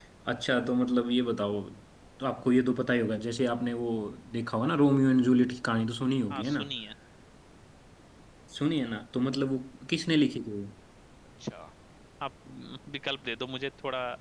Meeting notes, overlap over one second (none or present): none